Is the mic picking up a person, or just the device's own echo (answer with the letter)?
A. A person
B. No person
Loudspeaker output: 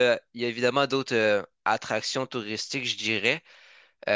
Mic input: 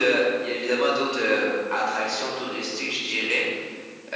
B